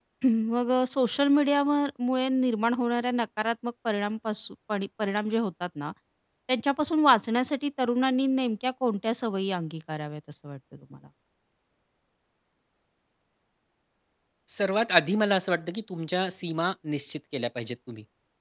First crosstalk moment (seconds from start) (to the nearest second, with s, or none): none